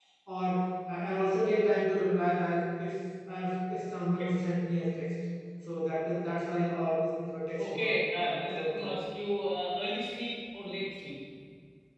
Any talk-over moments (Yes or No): Yes